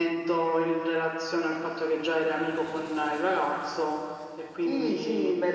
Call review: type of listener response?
taking over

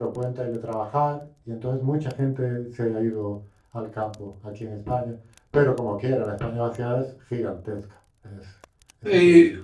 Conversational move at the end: taking over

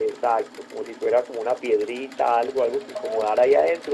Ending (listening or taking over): listening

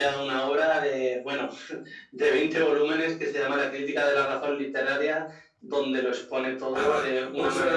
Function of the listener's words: taking over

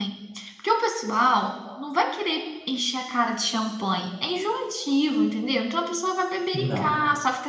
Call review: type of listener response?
listening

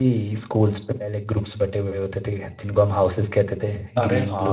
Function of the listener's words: taking over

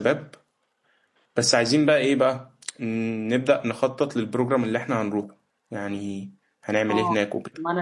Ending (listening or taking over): taking over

